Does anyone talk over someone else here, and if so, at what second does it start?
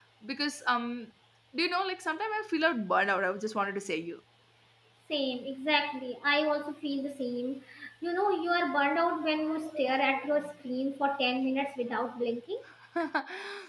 none

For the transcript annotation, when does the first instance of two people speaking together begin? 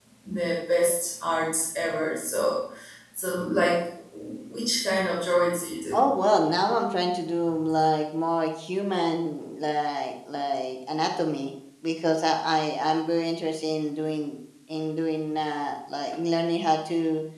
none

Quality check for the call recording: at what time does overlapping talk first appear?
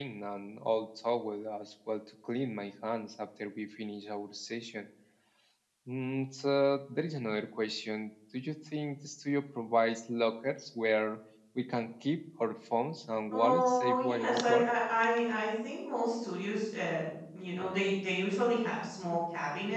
13.3 s

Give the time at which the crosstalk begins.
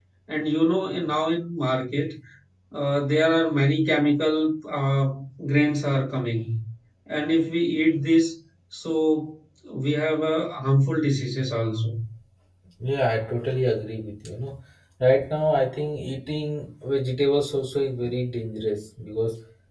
none

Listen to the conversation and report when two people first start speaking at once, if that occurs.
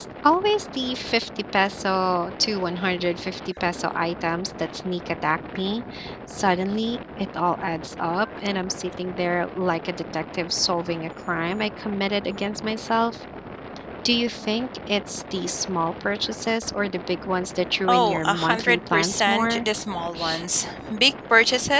17.9 s

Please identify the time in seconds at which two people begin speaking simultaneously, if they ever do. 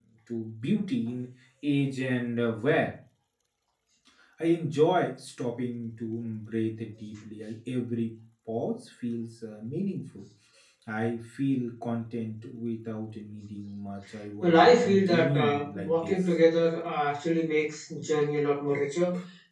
14.4 s

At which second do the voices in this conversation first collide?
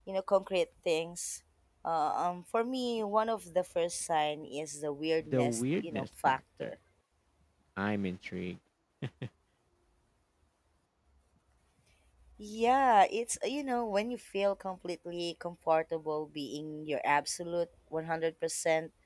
5.2 s

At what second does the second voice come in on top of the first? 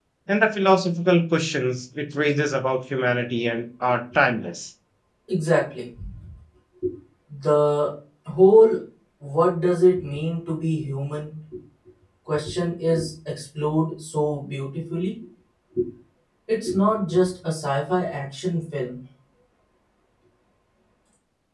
none

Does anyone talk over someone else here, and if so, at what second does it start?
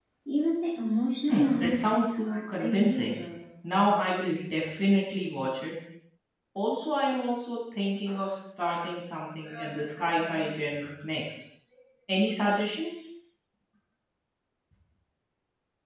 1.3 s

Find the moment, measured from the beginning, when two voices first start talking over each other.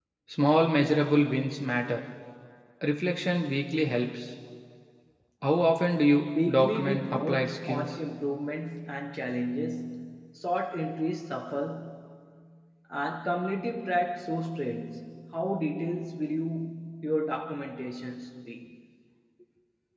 6.3 s

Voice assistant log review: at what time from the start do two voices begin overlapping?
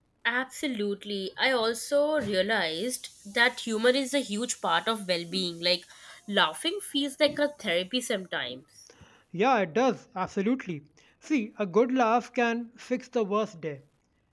none

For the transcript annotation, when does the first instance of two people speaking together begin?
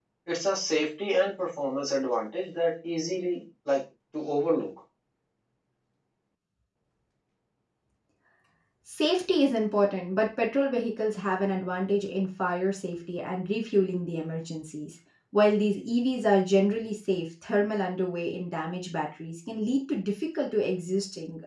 none

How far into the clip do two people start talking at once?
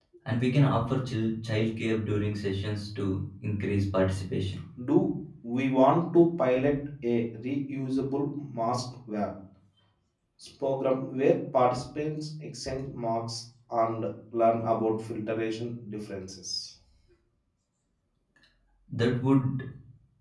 none

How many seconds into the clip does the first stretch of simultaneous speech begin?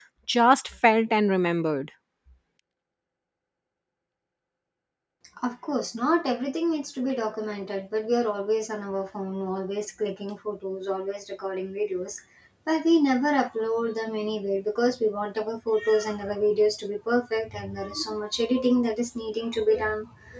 none

